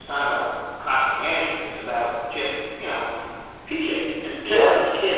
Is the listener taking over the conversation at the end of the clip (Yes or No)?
No